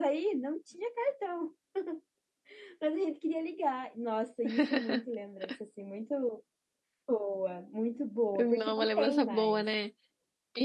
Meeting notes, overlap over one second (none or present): present